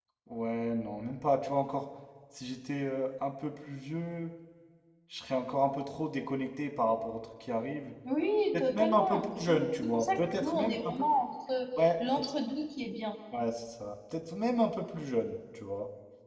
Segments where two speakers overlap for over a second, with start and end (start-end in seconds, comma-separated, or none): 8.5-10.9